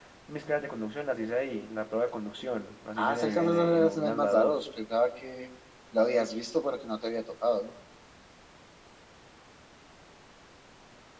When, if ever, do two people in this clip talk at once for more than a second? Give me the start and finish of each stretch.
3.0-4.6

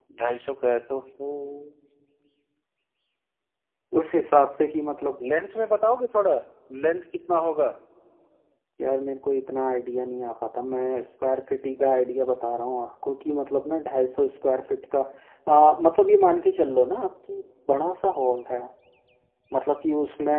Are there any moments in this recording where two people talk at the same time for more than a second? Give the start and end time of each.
none

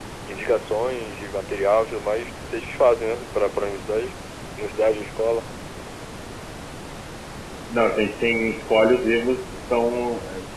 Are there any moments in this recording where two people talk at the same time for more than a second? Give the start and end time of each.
none

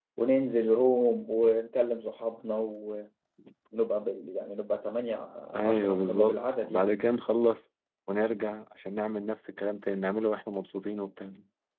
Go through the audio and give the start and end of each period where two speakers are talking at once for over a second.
5.6-6.8

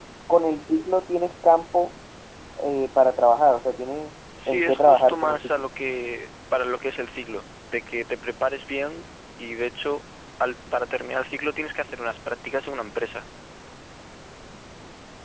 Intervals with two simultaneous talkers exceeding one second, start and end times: 4.5-5.7

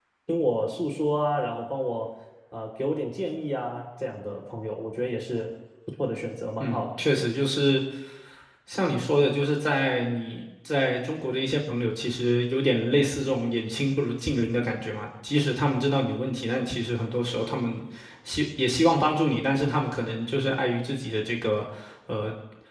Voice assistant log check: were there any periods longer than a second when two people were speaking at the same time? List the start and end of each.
none

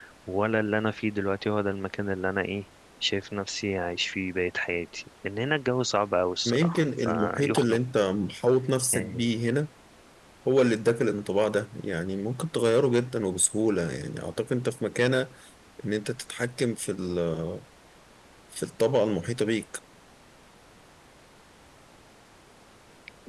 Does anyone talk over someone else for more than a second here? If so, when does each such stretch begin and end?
6.5-7.8

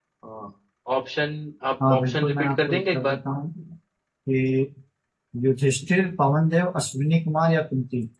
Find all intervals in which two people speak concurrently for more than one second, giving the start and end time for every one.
1.9-3.2

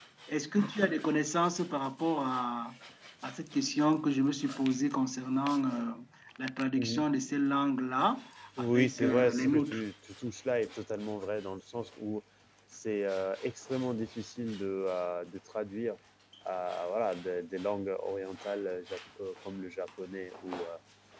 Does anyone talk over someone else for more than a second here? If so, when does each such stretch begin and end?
8.6-9.8

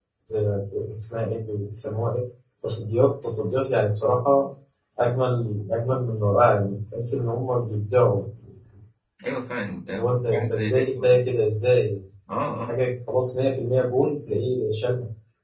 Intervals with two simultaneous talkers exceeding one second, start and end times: 9.9-11.1

